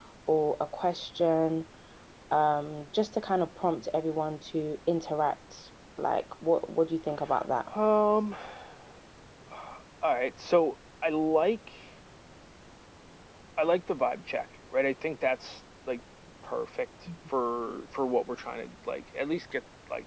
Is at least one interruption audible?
No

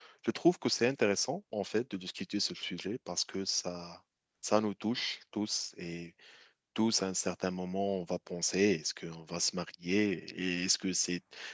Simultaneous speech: No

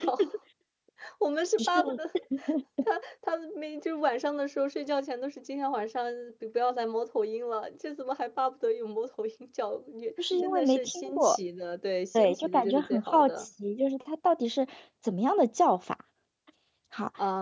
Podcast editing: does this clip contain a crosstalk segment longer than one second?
Yes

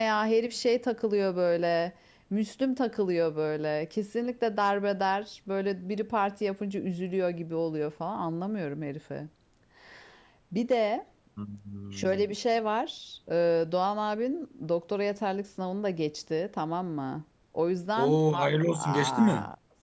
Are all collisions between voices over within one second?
No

